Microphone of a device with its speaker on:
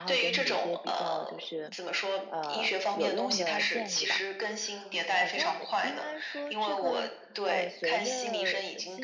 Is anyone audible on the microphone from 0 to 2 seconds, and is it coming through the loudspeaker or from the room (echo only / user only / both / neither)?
both